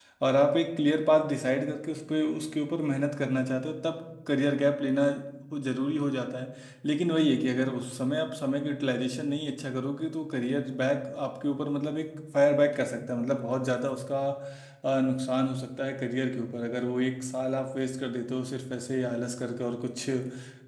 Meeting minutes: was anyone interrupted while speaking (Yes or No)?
No